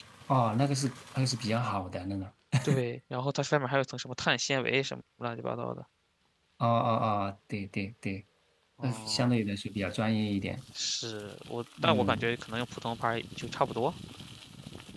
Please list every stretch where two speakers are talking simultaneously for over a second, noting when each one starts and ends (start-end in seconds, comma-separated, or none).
none